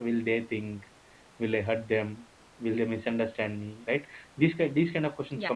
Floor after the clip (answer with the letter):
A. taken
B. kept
B